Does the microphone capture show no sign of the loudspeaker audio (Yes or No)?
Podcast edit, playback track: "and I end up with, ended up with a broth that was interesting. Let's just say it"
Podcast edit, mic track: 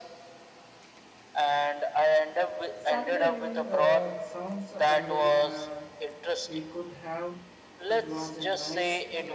No